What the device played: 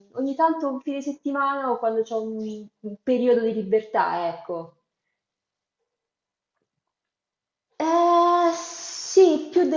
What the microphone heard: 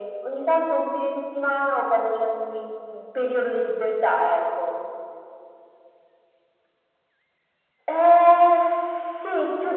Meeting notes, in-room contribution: none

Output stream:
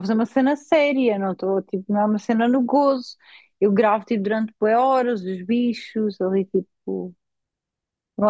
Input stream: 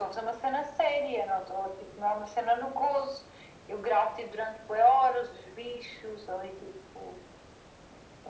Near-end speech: none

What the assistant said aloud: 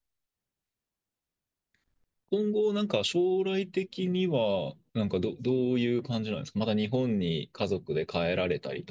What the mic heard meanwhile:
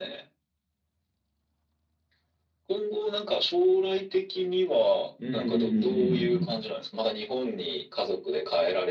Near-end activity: present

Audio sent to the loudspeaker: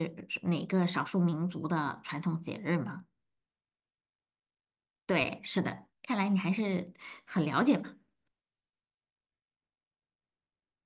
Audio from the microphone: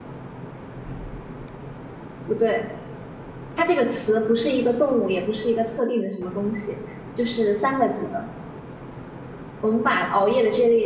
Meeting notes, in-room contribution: present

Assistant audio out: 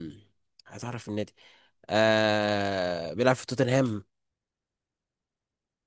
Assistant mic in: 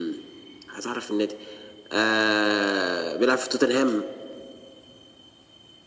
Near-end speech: none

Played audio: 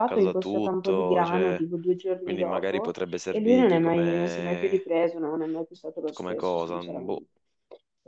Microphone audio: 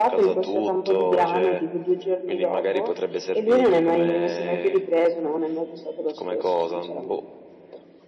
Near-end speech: none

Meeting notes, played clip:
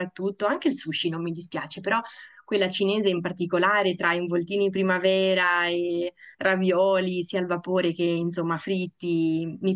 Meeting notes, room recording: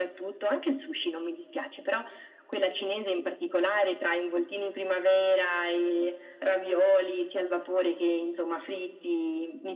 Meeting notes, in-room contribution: none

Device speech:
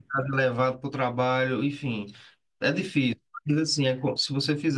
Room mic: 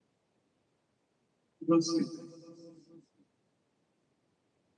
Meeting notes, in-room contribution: present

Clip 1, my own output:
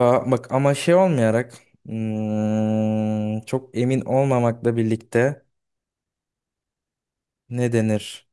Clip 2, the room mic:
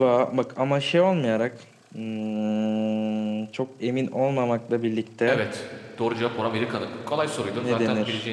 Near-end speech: present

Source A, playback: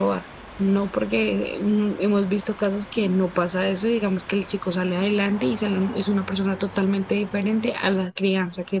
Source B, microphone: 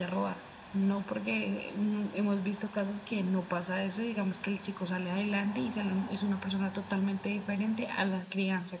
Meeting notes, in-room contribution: none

